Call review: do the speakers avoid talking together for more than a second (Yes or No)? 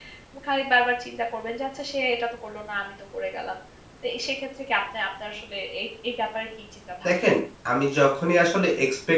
Yes